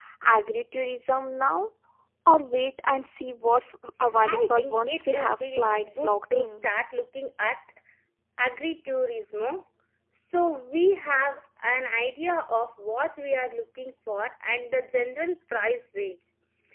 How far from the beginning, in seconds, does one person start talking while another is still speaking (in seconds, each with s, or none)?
4.3 s